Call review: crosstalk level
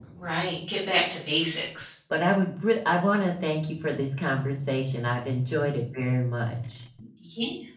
none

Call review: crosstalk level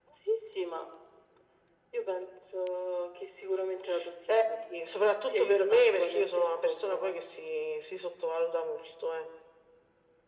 present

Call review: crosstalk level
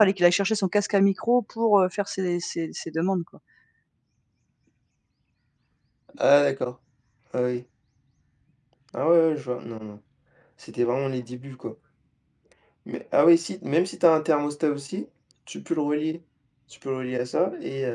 none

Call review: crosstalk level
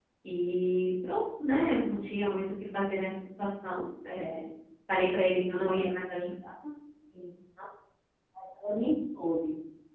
none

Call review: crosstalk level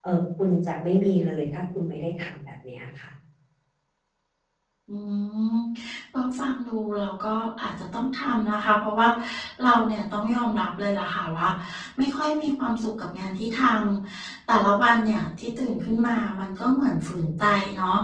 none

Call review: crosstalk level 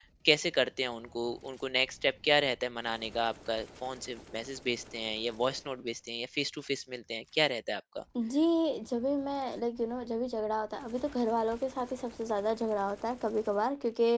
none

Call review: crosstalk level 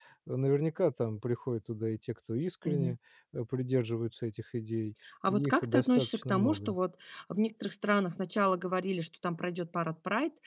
present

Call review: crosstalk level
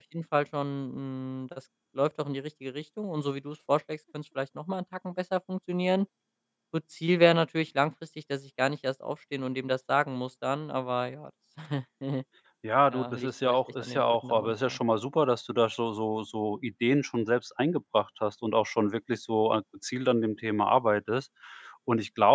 present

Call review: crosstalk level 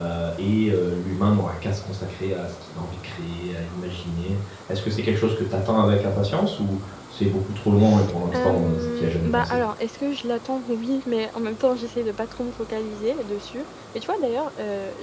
present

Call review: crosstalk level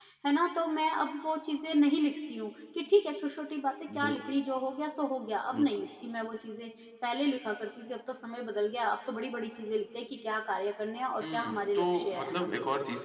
present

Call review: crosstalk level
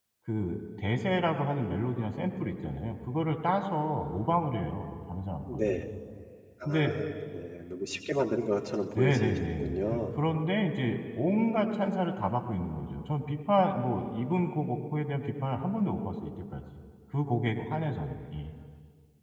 present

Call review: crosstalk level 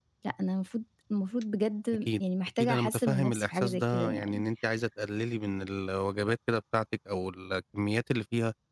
present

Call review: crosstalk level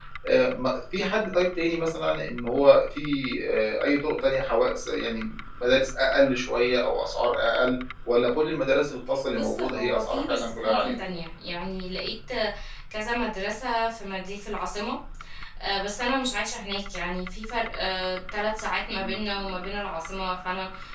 present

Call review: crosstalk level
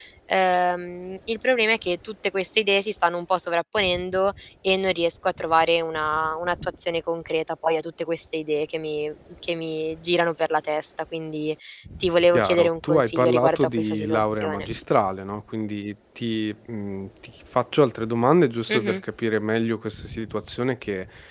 present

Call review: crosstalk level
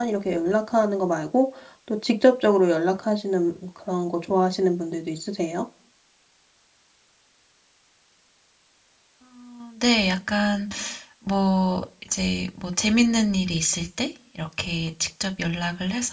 none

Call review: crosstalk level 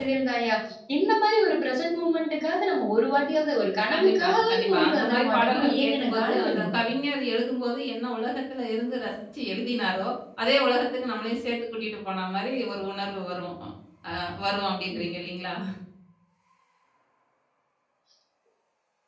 present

